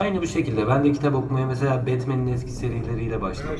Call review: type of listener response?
taking over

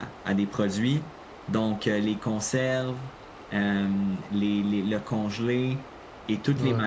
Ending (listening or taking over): listening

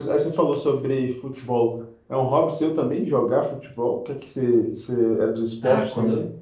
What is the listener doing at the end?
taking over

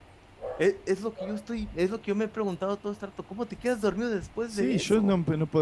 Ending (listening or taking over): taking over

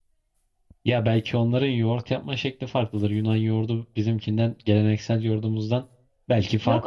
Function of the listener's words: taking over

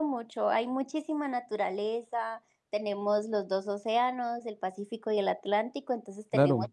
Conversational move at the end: listening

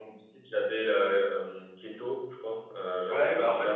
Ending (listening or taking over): taking over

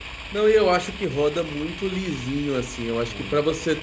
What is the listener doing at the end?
listening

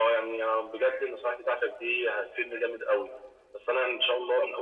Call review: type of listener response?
listening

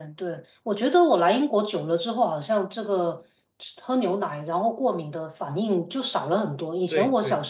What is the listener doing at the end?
listening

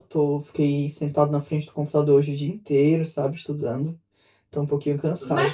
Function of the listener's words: taking over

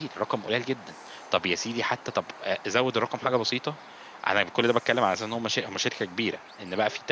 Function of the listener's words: listening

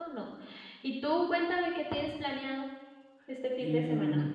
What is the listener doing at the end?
taking over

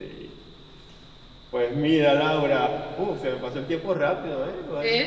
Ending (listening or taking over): listening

